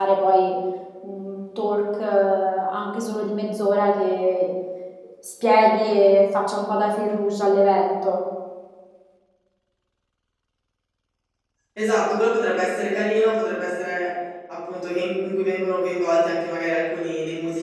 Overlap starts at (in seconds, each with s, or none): none